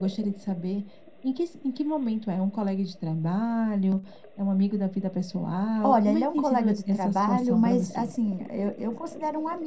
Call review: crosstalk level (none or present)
present